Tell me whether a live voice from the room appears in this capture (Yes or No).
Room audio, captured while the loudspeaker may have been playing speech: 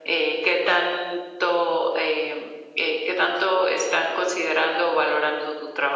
No